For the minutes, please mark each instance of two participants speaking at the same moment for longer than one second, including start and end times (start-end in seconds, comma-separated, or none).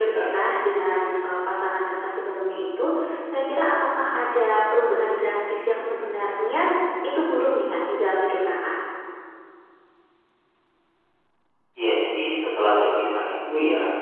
none